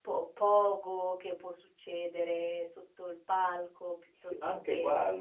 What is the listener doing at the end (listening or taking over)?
taking over